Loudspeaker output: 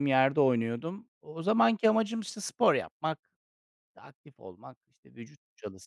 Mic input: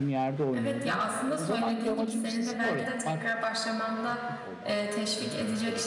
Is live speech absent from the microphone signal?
No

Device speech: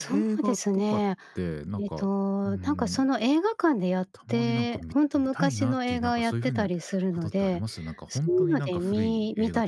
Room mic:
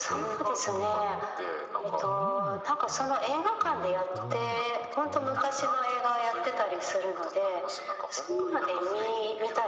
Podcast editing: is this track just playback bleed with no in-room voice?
No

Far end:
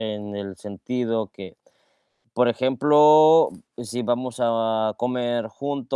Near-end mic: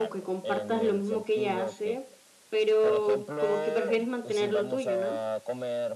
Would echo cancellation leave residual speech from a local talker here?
Yes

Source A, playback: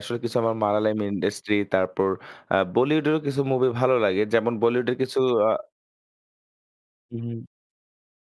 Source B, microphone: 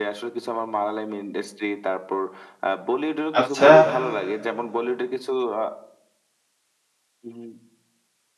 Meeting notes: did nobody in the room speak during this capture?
No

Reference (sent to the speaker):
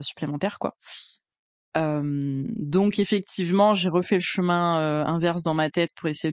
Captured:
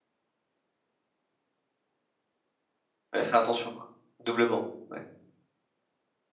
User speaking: Yes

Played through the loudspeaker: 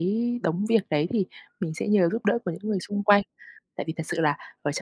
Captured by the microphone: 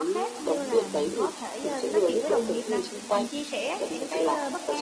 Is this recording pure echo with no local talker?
No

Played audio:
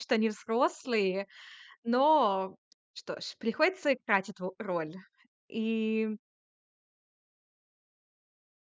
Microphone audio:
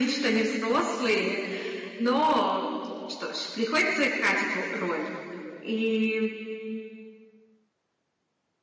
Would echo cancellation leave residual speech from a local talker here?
No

